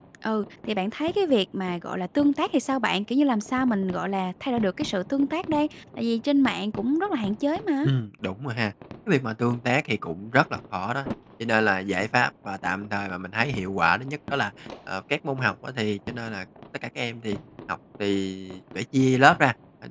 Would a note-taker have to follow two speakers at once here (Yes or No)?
No